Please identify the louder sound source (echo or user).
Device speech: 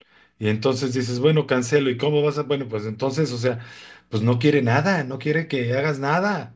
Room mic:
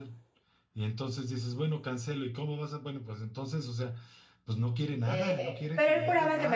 user